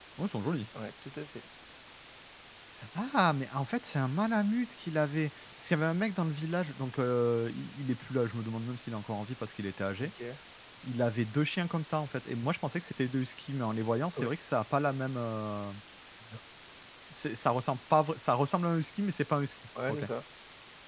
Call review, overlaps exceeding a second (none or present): none